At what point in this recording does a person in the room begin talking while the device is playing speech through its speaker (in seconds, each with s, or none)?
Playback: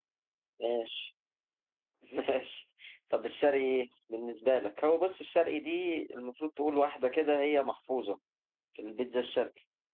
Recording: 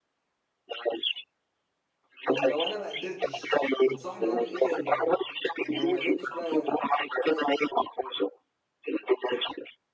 2.2 s